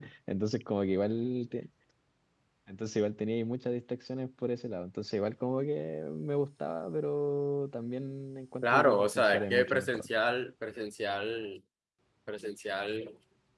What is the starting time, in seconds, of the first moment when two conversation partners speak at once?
9 s

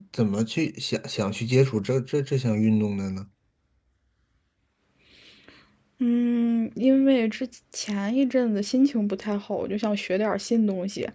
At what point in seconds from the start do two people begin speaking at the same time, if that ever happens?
none

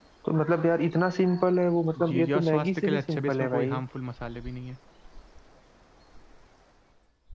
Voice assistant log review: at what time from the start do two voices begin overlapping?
2 s

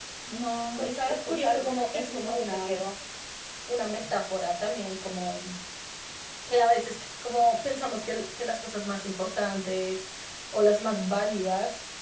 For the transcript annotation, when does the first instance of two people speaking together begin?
1 s

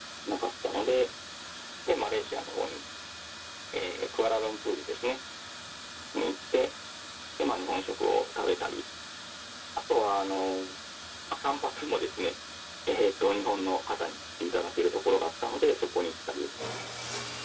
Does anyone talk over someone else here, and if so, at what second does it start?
none

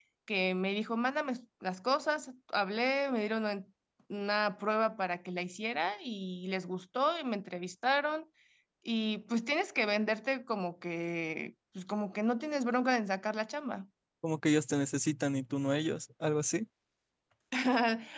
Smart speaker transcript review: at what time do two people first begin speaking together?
none

